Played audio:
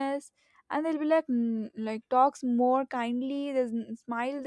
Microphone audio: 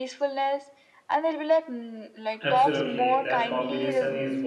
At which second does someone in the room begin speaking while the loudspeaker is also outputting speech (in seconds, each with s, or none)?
2.4 s